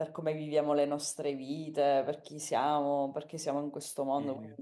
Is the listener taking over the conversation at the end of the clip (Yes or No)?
No